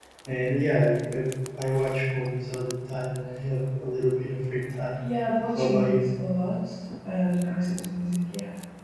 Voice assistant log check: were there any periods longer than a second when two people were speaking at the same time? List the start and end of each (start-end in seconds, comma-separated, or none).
none